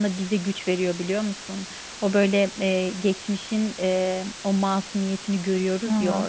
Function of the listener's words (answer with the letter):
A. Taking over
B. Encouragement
B